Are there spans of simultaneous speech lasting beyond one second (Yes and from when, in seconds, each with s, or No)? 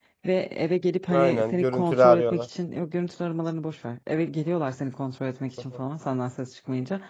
Yes, from 1.1 s